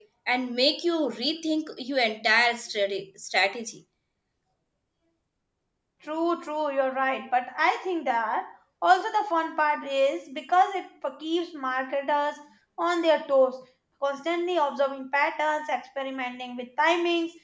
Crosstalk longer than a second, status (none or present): none